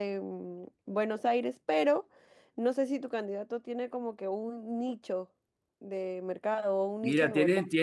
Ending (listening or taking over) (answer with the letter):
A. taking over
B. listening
A